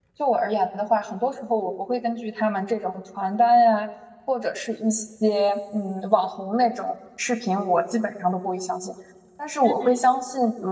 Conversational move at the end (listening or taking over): listening